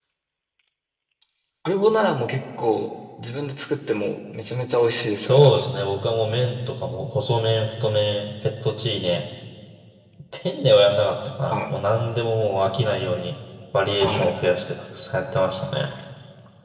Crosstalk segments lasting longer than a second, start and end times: none

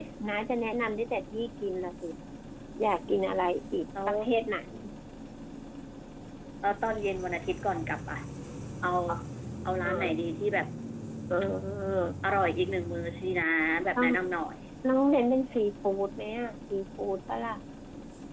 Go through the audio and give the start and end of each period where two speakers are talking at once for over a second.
none

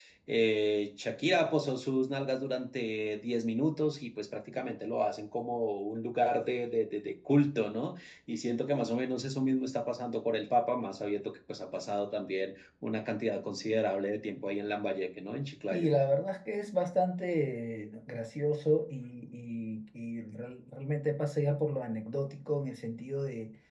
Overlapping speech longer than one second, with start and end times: none

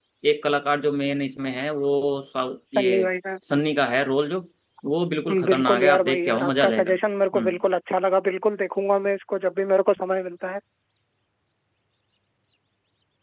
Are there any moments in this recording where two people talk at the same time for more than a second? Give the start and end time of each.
5.5-6.9

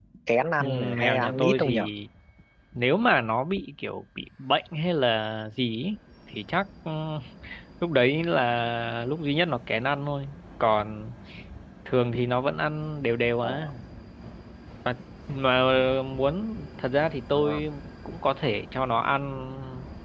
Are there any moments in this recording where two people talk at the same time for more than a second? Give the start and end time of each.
0.6-1.9

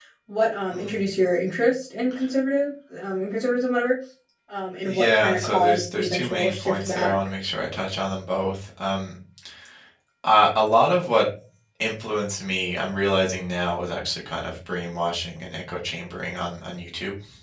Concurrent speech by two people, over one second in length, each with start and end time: 4.9-7.2

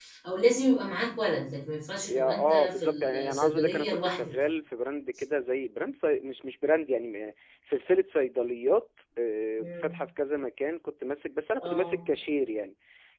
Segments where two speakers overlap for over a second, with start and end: 2.1-4.3

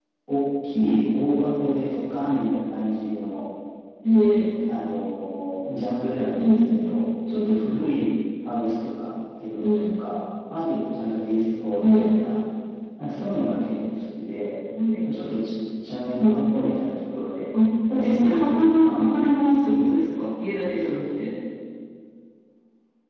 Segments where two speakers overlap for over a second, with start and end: 17.9-19.1

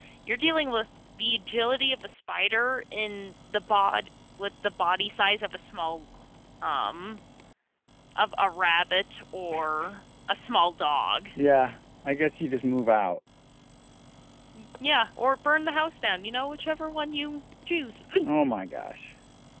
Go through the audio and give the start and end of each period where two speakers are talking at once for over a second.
none

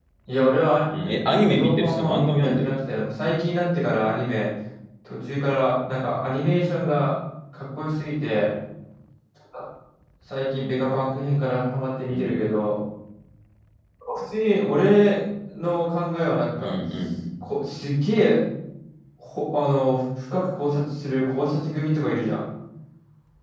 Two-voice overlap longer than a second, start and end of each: 1.4-2.8

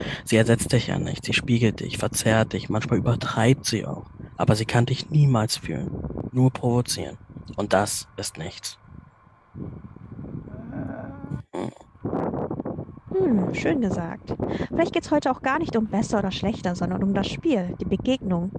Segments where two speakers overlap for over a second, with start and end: none

